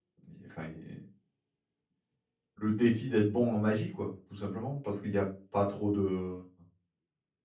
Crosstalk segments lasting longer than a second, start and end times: none

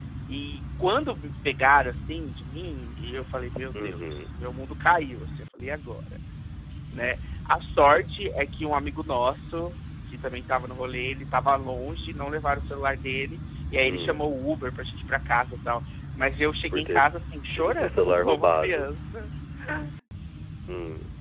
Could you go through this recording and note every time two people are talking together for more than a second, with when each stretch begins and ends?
17.5-18.9

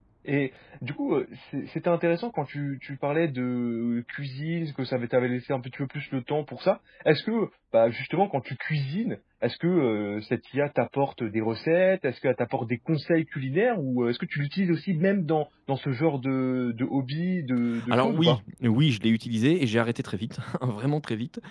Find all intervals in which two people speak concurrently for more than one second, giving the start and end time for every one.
none

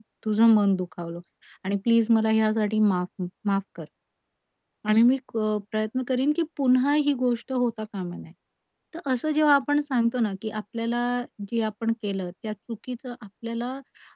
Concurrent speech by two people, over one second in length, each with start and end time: none

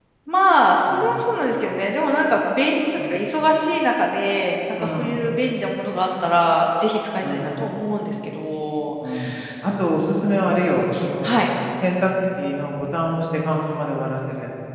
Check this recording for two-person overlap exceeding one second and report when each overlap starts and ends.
none

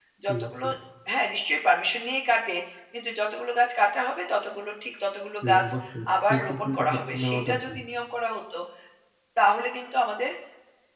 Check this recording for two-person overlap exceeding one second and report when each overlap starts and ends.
6.3-7.8

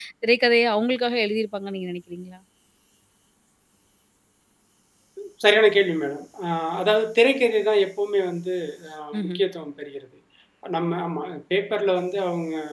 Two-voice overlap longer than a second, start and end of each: none

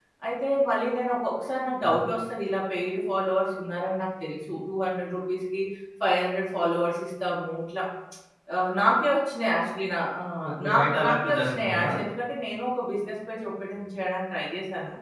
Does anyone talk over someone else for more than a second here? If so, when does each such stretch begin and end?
10.7-11.9

